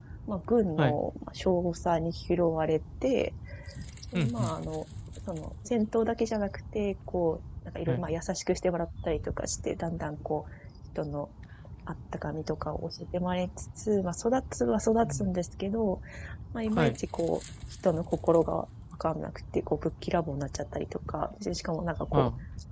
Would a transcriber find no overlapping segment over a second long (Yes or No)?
Yes